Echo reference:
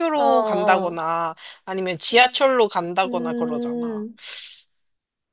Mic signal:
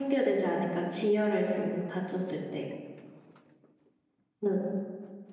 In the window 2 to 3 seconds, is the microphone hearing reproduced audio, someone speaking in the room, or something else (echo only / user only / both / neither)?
user only